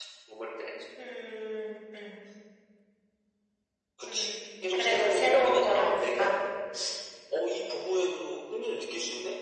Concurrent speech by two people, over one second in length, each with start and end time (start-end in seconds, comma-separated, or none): 4.7-6.3